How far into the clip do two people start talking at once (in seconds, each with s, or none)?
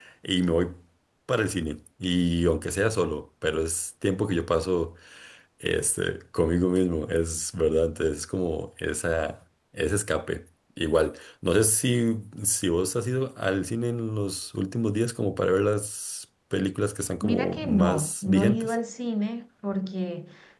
17.2 s